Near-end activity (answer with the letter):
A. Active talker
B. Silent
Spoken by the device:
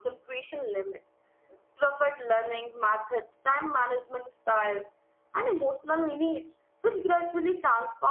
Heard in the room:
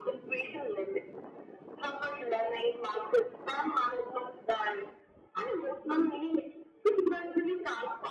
B